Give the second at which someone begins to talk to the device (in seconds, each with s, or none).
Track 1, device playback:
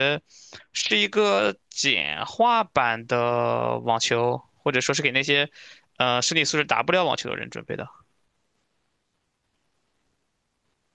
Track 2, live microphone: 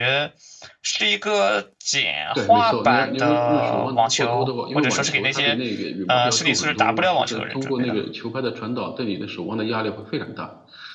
2.3 s